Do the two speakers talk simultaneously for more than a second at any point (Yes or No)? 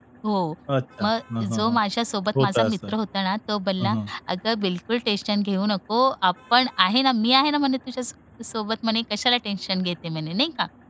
No